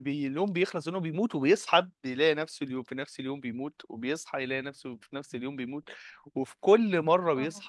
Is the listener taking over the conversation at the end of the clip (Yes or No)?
No